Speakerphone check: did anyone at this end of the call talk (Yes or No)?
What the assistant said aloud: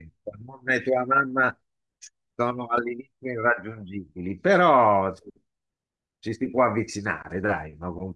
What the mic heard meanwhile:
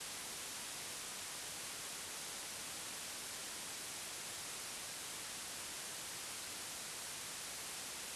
No